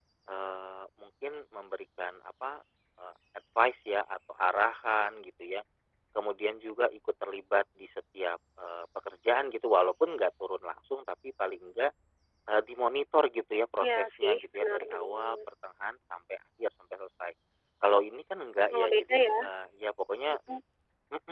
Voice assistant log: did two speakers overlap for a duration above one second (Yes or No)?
Yes